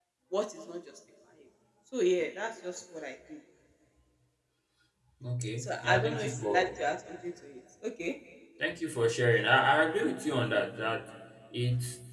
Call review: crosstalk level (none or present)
present